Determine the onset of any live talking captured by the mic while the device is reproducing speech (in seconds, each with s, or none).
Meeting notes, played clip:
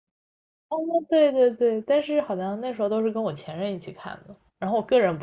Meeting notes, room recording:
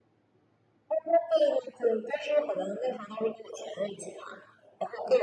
none